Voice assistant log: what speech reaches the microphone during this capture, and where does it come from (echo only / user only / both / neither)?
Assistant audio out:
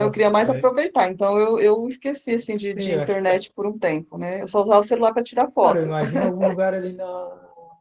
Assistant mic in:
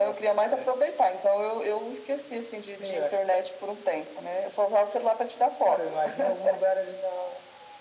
echo only